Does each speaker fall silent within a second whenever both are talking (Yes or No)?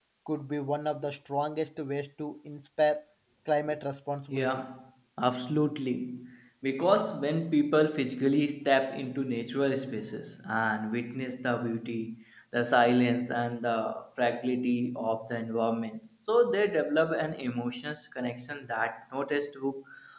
Yes